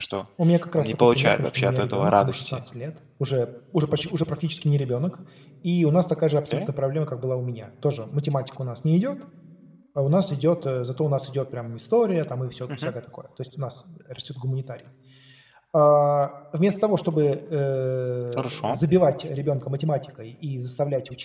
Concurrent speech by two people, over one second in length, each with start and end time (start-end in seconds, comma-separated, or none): 0.8-2.6